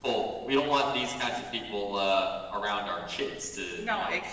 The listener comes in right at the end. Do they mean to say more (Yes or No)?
Yes